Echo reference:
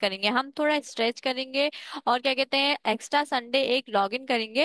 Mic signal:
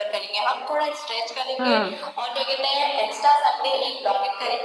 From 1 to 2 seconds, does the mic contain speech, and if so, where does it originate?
both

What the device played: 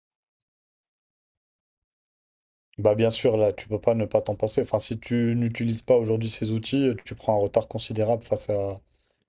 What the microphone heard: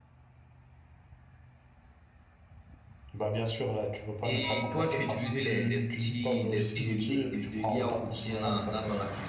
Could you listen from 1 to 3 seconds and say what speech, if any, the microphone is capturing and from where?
neither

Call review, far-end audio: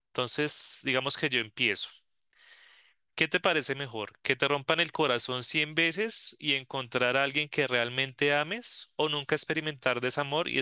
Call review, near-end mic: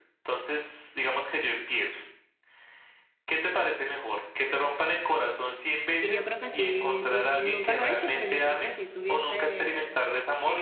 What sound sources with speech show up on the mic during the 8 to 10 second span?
both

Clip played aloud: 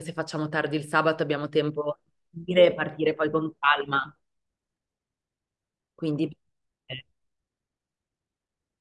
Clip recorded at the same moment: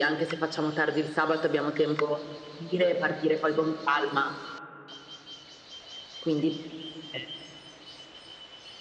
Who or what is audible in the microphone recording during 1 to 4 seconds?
echo only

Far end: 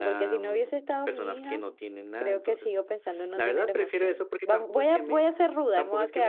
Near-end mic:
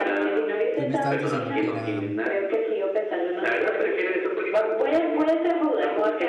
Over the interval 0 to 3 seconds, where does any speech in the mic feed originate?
both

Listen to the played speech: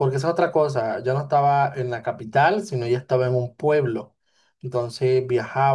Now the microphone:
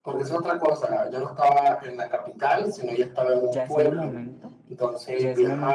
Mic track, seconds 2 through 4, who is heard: both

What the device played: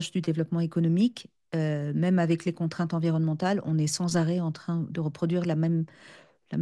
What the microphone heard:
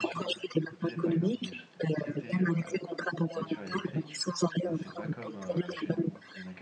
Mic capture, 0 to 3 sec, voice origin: both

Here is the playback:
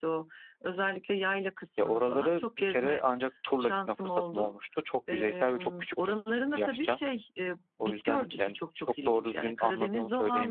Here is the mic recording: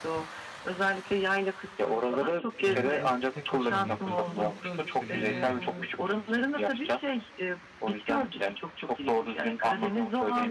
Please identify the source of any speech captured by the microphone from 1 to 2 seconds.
echo only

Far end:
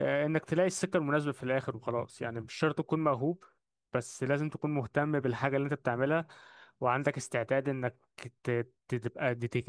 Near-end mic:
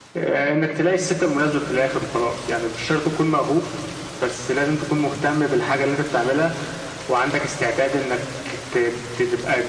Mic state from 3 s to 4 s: echo only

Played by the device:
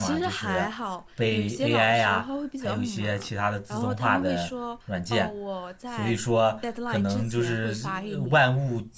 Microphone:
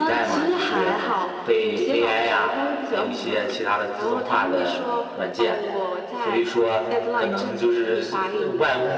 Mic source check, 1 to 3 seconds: echo only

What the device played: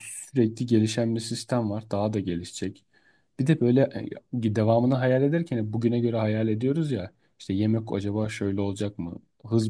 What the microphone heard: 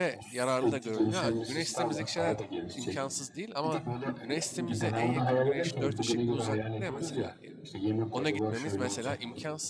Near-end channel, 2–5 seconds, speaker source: both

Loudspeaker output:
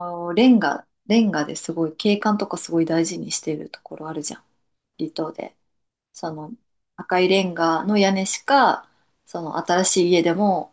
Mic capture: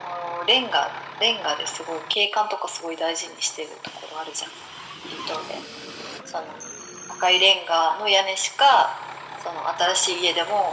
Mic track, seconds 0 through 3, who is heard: echo only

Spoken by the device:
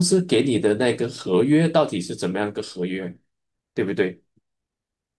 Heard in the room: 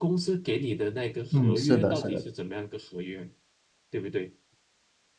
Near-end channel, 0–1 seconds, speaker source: echo only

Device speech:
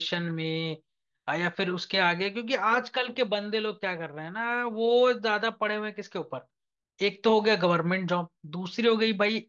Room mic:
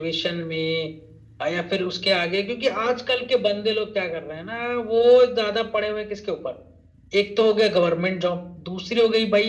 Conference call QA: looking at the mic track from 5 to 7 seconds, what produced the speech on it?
echo only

